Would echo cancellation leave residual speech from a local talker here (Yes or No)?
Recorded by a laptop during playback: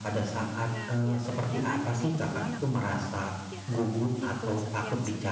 Yes